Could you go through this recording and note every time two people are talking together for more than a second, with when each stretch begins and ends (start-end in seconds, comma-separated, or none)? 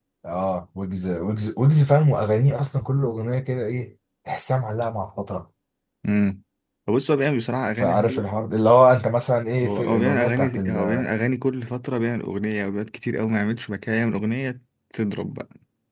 9.6-11.1